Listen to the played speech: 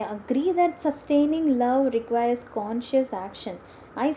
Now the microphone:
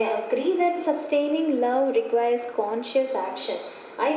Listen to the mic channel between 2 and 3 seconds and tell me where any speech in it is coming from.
echo only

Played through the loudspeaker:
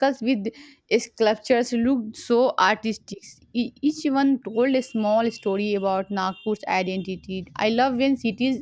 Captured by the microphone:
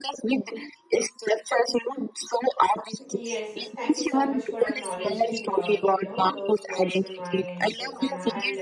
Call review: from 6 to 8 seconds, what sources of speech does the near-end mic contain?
both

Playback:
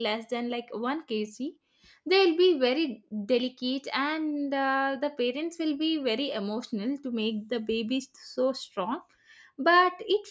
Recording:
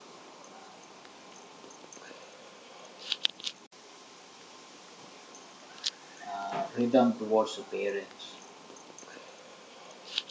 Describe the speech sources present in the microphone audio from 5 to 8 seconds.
user only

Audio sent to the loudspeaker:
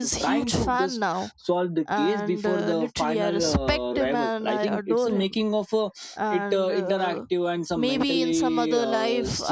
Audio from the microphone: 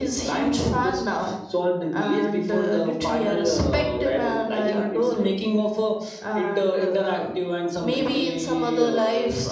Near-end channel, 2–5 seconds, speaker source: echo only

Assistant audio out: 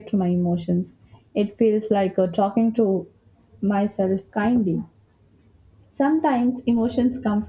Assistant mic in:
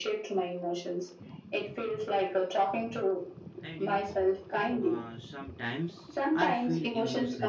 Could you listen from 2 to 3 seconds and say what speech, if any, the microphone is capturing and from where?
echo only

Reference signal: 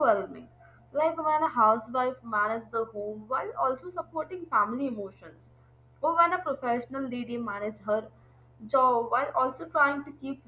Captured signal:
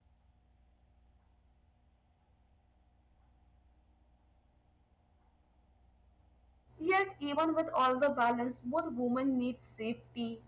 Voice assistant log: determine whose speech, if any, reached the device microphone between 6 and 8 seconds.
user only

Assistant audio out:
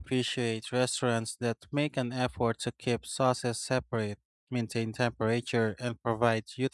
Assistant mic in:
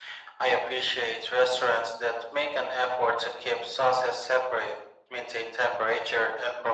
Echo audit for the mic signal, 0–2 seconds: echo only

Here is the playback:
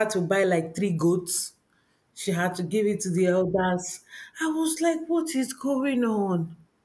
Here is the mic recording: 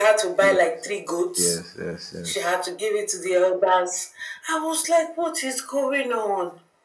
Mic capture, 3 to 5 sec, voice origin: echo only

